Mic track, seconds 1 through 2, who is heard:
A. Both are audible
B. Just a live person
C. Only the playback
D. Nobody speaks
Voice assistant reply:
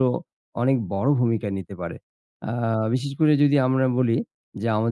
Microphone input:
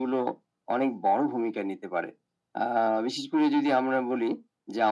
C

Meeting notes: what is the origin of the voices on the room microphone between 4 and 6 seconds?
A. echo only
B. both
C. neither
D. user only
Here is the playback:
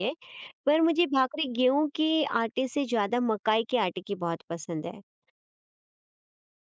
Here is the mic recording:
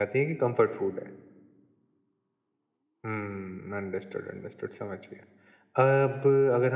D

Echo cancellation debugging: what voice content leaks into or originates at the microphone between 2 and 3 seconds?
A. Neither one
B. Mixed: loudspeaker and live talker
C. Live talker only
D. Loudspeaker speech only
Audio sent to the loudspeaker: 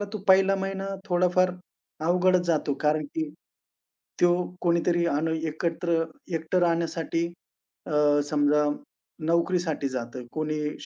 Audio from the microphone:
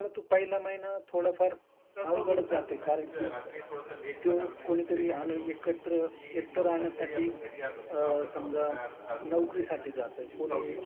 B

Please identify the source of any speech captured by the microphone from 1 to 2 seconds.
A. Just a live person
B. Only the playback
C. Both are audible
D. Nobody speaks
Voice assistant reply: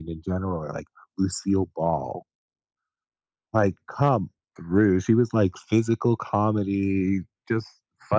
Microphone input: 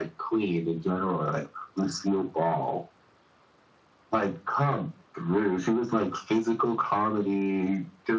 B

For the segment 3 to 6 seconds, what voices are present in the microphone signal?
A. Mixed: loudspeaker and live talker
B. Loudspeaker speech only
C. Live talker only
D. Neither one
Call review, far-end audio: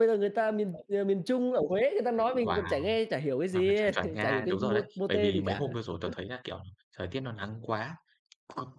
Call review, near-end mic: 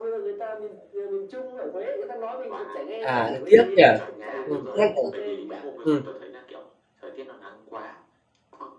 A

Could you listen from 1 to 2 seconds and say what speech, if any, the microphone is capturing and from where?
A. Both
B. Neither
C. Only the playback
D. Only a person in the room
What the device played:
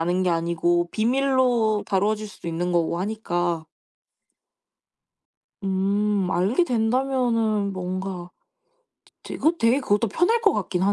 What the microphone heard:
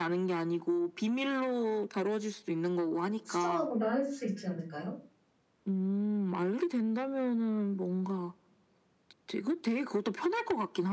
C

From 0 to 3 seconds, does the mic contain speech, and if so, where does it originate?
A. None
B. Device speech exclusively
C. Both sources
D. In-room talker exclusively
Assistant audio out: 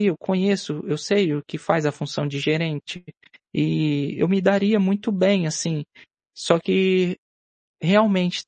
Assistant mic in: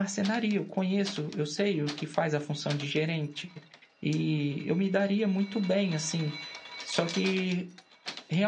B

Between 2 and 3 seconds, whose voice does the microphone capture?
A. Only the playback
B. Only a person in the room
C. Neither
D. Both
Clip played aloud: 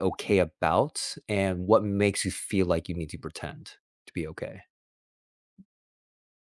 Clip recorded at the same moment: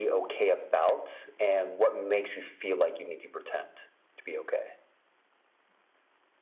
A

